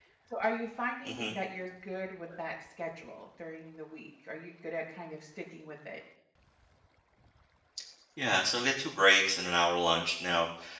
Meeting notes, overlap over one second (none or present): none